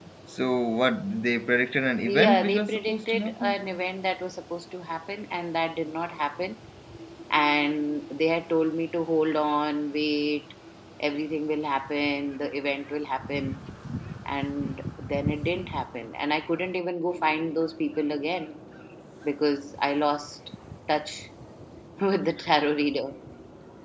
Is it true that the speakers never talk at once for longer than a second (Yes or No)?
No